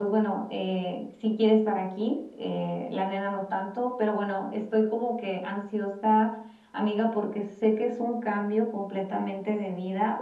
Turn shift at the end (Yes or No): No